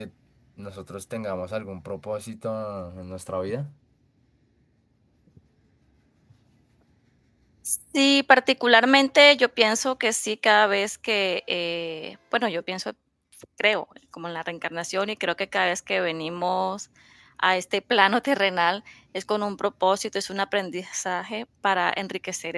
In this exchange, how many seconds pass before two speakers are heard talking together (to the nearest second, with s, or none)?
none